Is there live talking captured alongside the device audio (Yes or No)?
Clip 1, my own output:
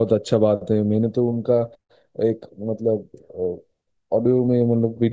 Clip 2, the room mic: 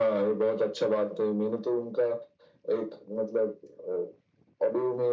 No